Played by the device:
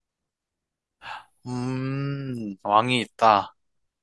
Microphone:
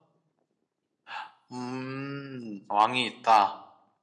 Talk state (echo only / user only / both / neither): echo only